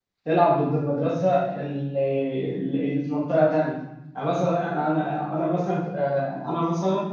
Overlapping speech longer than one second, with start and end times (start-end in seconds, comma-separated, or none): none